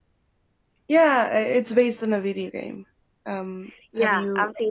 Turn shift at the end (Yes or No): Yes